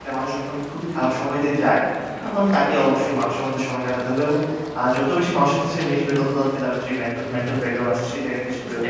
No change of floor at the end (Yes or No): No